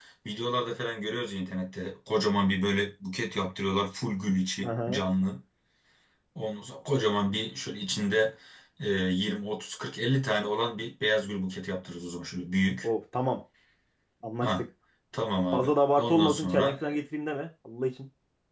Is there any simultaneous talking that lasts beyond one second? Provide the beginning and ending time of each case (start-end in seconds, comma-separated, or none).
15.5-16.8